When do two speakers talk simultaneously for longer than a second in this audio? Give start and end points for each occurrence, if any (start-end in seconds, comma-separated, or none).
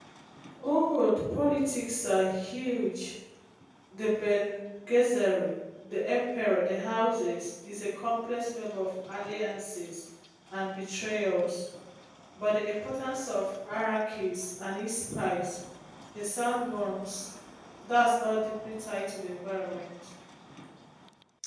none